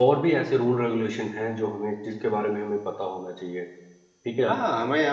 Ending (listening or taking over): taking over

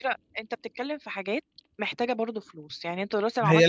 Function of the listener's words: taking over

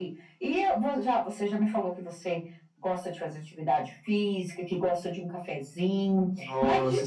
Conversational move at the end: listening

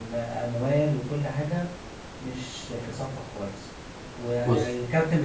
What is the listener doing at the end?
listening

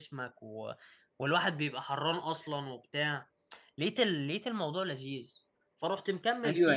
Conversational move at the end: taking over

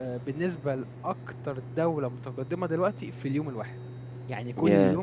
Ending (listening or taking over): listening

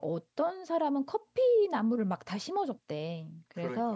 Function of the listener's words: listening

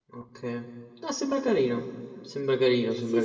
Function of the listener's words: taking over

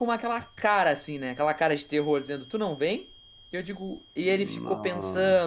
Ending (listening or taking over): listening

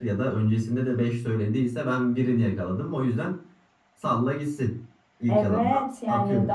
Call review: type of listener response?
taking over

